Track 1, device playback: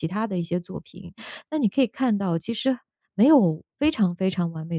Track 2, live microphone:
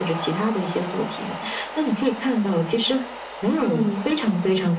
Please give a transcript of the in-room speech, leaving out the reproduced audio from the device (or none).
嗯。